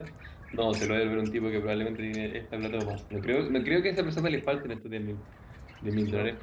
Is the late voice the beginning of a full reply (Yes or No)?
No